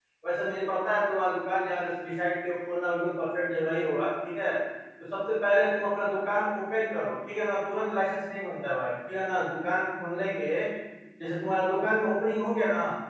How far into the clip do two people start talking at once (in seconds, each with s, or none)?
none